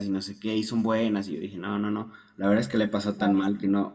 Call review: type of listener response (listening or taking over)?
listening